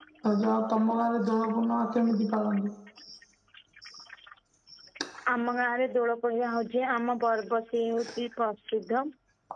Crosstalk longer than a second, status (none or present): none